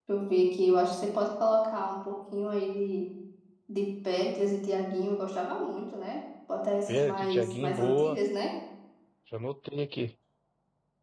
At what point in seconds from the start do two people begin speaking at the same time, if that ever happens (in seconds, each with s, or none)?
6.9 s